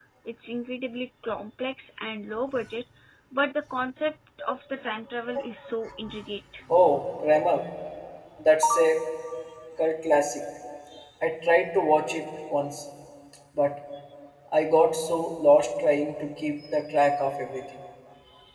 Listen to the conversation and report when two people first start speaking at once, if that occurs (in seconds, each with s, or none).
none